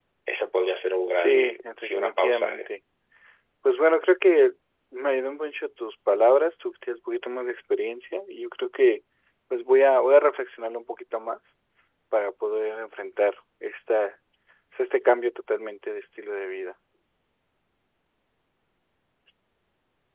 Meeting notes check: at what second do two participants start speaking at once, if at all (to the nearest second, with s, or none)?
1 s